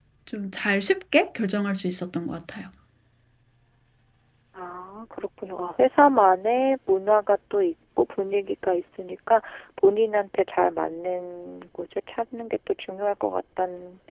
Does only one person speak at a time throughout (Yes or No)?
Yes